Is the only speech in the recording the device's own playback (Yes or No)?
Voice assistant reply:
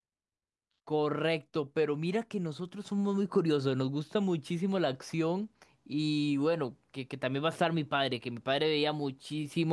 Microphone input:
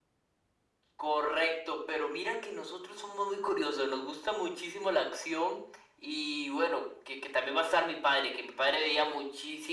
Yes